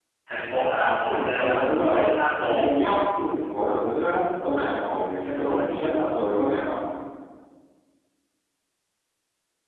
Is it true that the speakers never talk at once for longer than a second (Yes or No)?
No